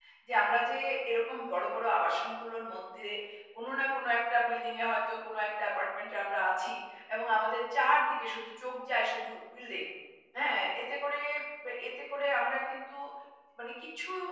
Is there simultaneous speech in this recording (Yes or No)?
No